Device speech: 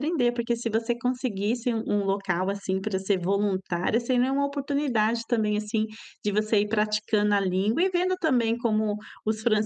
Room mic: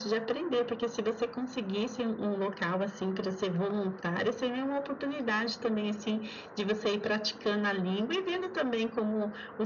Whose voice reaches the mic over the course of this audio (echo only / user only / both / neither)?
echo only